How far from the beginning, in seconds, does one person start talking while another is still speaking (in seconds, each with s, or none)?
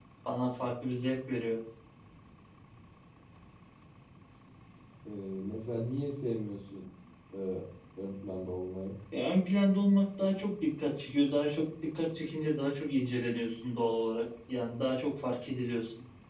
none